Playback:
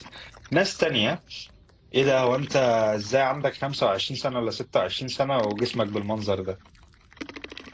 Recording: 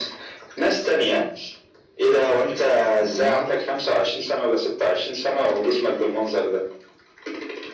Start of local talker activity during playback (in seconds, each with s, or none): 3.0 s